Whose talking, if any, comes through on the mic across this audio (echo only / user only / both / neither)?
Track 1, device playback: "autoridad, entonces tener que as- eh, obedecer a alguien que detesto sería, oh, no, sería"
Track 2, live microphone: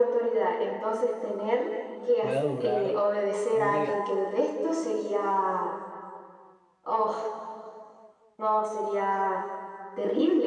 both